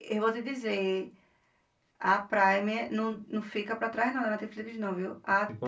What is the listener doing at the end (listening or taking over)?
listening